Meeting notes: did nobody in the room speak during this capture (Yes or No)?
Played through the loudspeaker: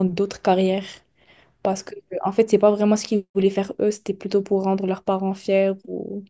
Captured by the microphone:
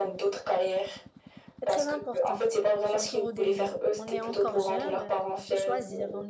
No